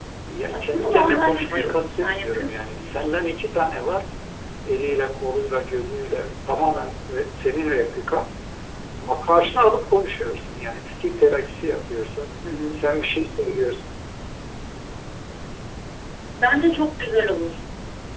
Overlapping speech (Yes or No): Yes